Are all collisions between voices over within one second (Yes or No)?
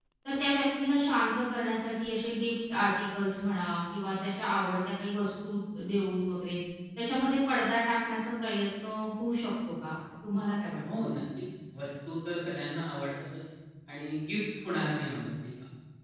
Yes